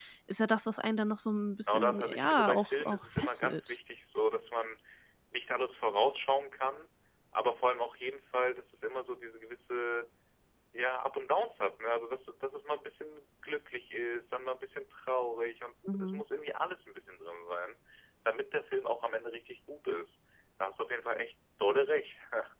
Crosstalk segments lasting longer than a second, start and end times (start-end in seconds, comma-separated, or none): 1.7-3.8